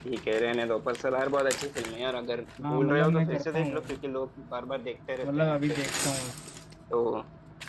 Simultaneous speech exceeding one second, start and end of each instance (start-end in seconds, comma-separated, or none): 2.6-4.0